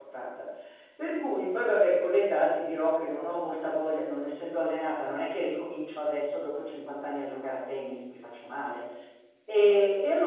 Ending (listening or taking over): listening